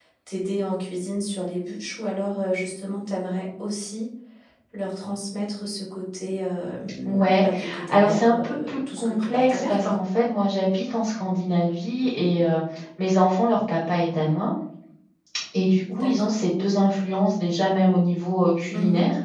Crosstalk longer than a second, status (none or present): present